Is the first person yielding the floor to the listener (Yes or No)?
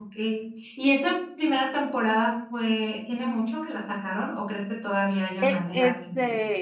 Yes